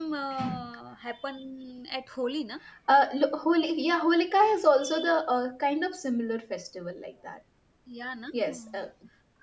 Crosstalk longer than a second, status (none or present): none